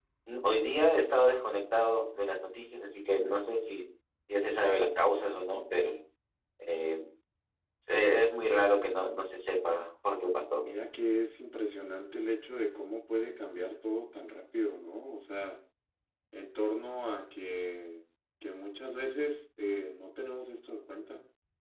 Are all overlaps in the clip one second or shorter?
Yes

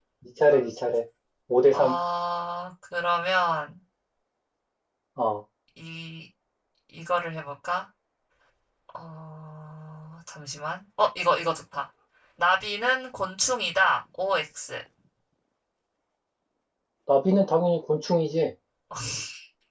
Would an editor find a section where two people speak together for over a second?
No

